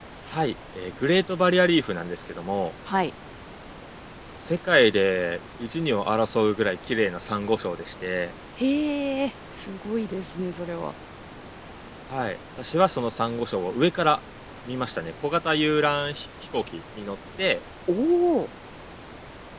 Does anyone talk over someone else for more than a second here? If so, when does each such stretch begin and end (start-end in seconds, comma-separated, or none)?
none